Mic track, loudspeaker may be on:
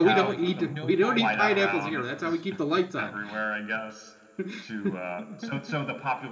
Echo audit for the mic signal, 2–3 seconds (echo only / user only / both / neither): both